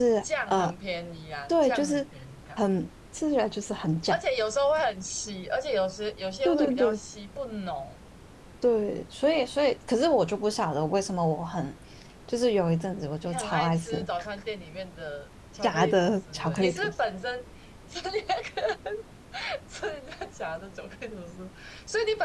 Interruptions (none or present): present